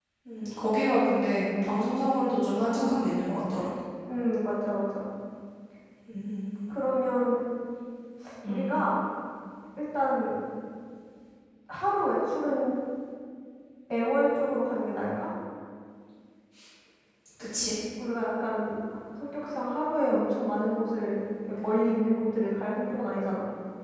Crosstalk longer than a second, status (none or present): none